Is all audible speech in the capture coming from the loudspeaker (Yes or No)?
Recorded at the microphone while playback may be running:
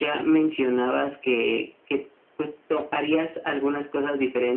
Yes